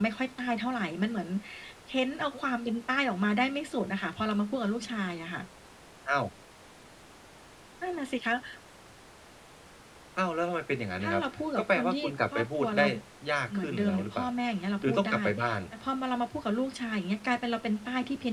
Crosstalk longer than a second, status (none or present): present